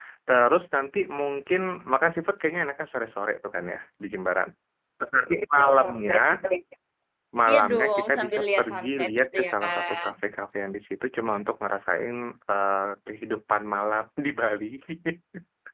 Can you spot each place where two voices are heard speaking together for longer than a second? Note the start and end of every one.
7.5-10.1

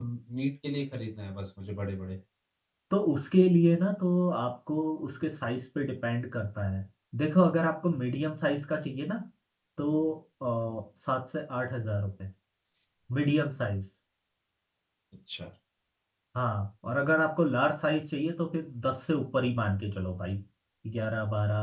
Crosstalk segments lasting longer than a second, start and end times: none

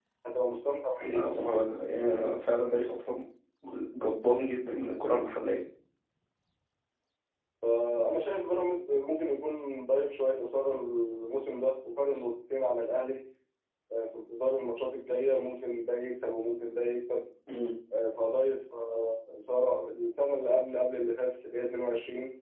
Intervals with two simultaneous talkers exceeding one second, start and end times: none

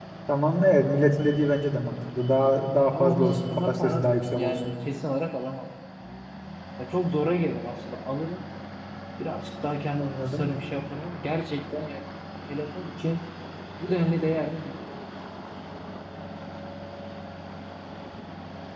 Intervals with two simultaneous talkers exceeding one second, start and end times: 2.9-4.7

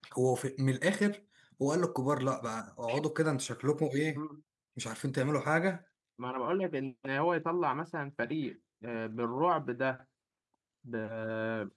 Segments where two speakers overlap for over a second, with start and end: none

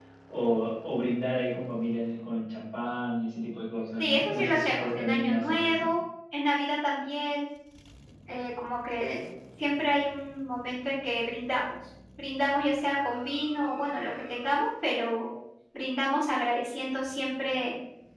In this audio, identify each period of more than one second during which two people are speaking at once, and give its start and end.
4.0-5.9

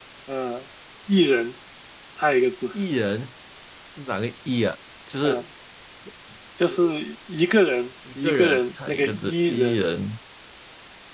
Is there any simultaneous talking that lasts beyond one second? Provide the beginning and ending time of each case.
8.2-9.8

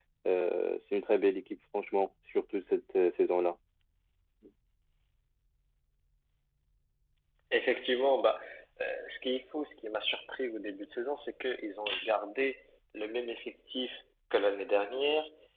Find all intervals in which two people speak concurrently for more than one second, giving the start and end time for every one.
none

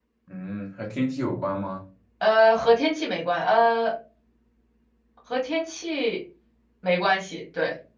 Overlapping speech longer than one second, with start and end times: none

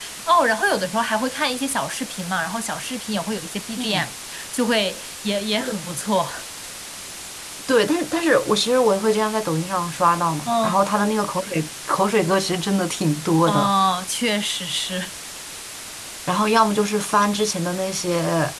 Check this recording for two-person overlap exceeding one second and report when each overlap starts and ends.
none

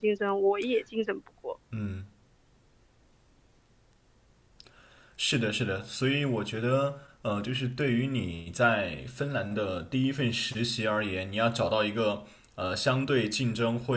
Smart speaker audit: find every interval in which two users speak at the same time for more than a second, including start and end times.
none

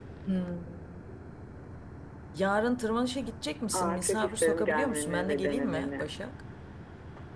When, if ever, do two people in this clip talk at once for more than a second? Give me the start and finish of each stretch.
3.7-6.1

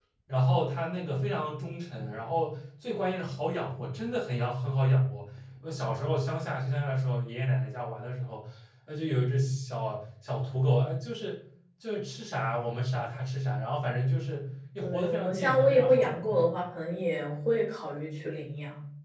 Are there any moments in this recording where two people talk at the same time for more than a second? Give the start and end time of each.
14.8-16.5

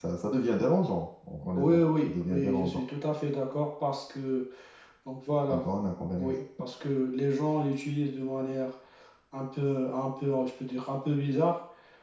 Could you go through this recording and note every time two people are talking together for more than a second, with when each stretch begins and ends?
1.6-2.8

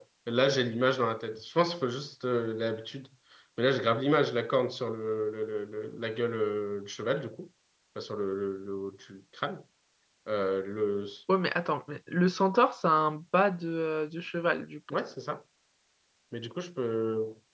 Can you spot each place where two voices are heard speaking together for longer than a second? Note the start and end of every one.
none

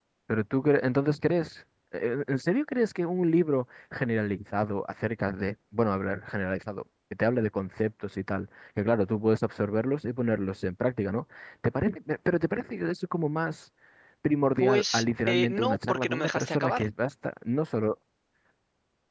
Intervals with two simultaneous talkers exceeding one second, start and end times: 14.6-16.8

